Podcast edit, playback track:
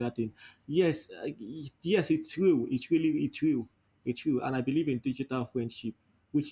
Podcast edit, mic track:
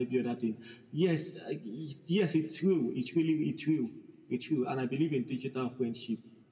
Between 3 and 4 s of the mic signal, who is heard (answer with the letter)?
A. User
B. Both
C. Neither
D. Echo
D